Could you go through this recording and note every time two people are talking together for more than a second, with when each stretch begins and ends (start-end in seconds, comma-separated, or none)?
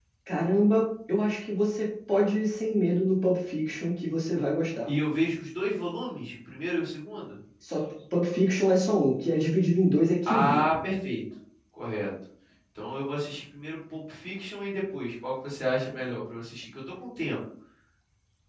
none